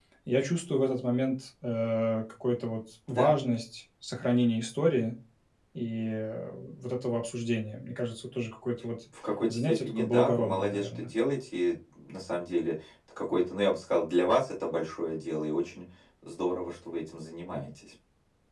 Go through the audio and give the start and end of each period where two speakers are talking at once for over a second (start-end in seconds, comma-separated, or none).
9.5-11.1